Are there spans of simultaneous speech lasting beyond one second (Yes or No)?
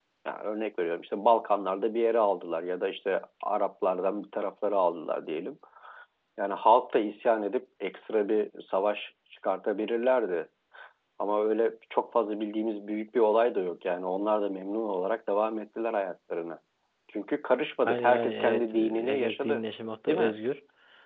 Yes